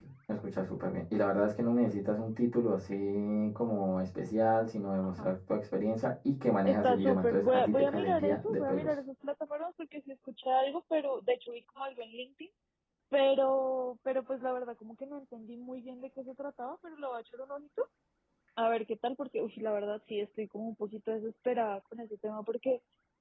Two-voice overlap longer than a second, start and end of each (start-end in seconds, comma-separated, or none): 6.7-8.9